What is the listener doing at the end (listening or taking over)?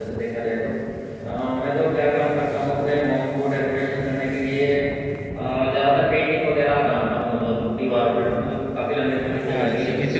taking over